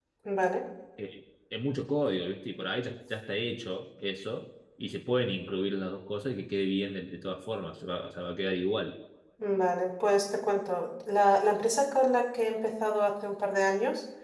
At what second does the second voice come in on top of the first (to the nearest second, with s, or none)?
none